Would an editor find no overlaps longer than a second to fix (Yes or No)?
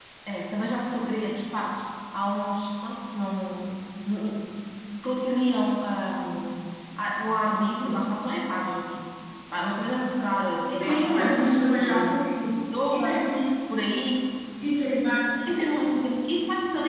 No